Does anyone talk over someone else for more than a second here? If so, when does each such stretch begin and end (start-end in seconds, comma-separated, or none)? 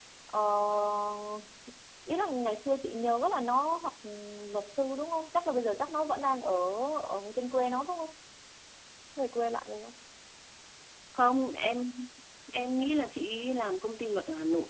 none